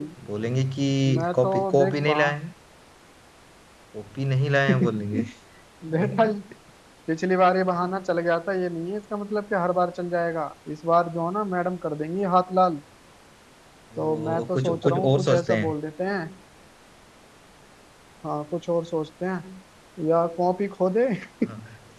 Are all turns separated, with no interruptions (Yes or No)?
No